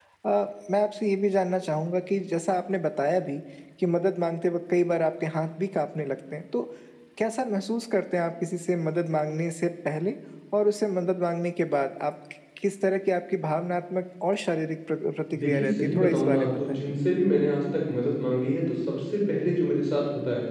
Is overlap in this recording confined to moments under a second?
No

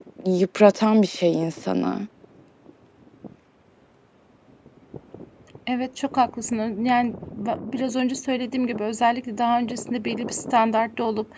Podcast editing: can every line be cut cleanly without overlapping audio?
Yes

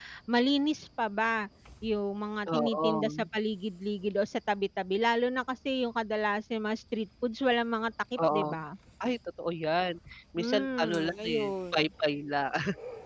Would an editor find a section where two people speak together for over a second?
Yes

